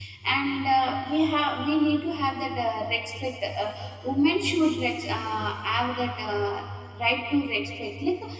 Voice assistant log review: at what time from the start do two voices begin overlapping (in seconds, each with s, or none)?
none